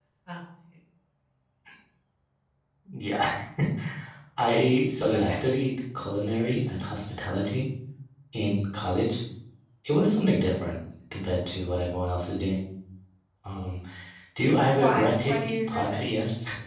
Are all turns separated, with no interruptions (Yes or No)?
No